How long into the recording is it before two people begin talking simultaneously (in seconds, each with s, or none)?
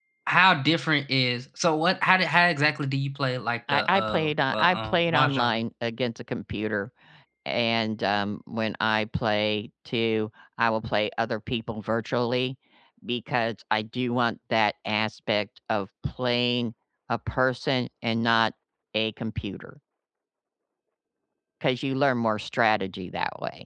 3.7 s